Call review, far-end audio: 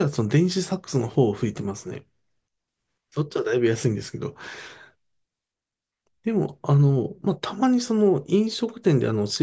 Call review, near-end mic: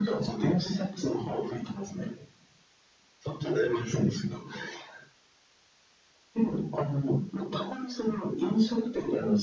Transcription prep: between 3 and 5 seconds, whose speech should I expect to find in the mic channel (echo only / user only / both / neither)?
echo only